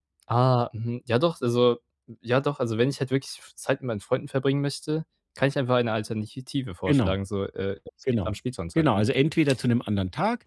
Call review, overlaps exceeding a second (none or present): none